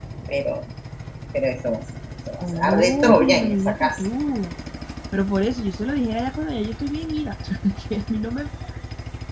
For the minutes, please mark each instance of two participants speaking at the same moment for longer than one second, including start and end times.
2.4-3.9

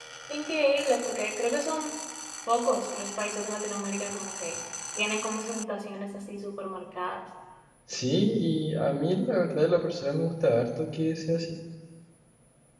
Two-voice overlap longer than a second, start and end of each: none

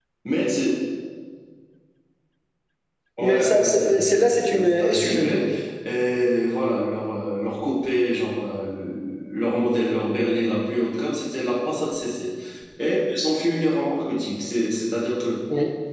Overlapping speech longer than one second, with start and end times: 3.2-5.3

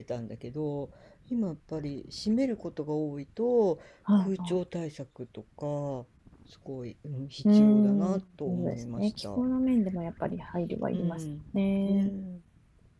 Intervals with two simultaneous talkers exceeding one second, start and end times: 7.5-9.4

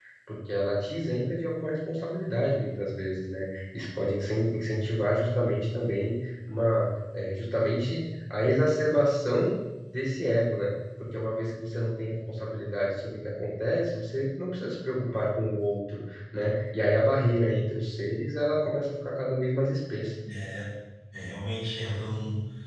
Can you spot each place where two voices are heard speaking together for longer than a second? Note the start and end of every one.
none

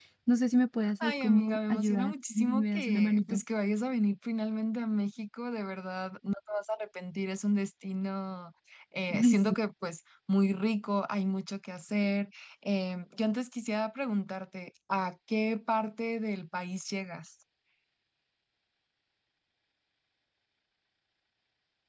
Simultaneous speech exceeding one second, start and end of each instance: 1.0-3.4

